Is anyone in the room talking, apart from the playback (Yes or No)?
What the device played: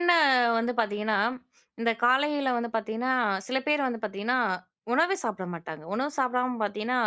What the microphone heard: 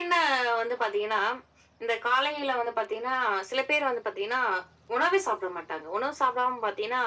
No